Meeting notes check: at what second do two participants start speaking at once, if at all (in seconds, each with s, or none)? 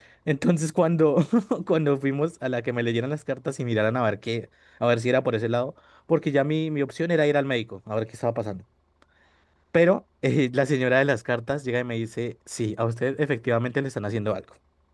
none